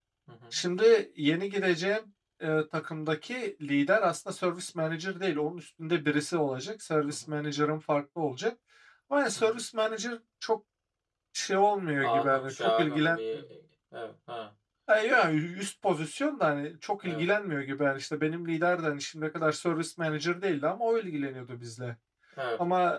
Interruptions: present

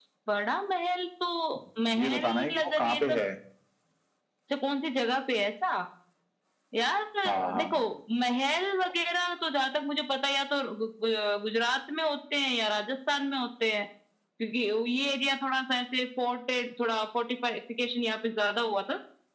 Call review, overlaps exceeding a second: present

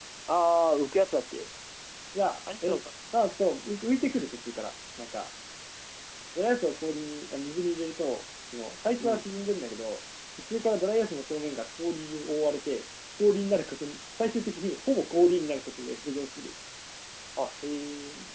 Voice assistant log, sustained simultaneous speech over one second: none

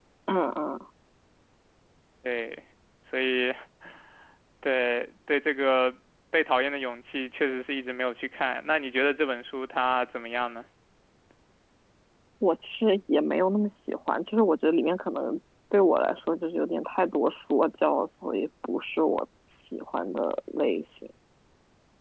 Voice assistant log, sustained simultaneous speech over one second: none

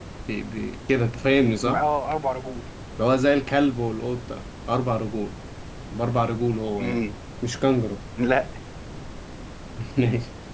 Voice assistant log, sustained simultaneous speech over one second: none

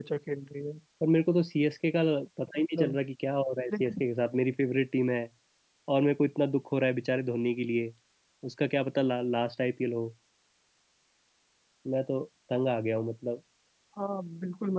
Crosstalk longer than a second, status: none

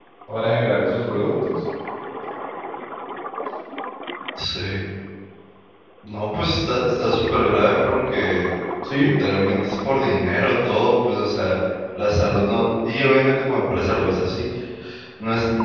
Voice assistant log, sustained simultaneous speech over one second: none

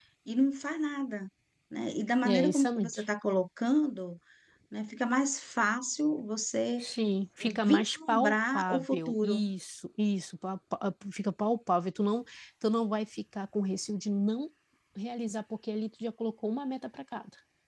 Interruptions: present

